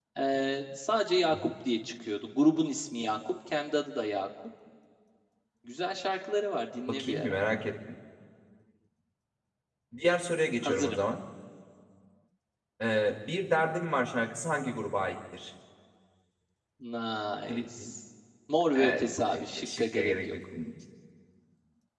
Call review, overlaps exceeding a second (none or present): present